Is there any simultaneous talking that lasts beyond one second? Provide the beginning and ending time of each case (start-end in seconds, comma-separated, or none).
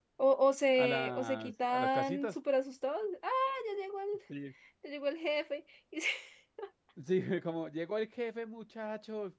0.8-2.4